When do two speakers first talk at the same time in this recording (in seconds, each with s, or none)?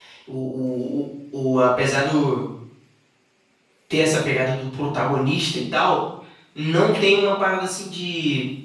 none